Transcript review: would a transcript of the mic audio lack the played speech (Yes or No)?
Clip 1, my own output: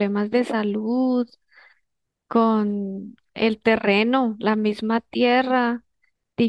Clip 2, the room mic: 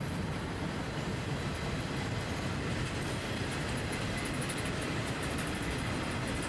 Yes